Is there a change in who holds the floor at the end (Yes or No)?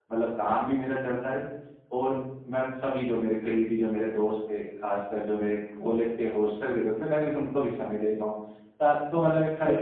No